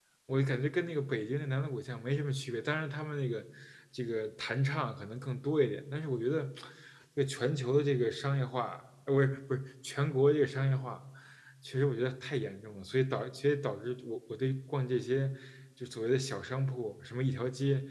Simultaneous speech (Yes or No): No